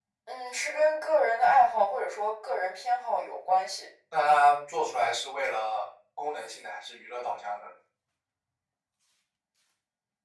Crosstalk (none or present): none